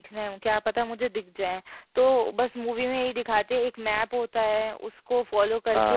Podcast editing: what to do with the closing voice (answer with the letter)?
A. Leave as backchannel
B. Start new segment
A